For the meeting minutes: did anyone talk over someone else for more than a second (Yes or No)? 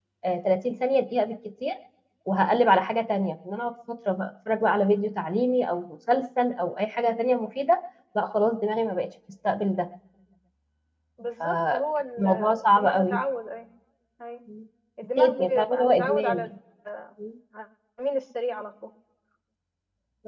Yes